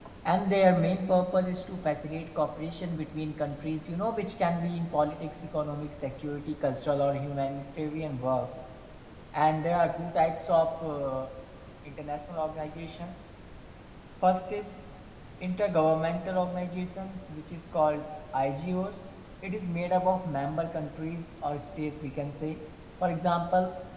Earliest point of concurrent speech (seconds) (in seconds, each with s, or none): none